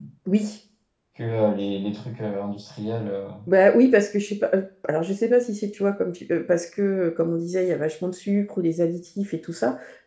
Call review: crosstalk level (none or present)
none